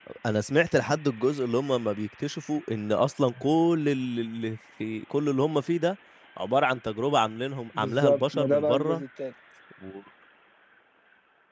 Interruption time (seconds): 7.8 s

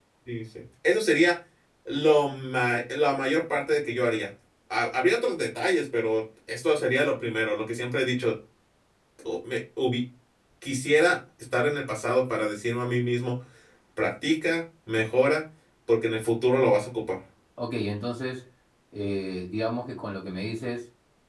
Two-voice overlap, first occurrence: none

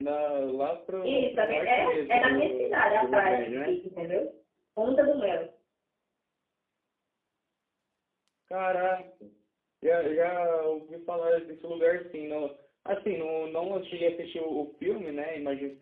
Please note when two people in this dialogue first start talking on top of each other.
1.0 s

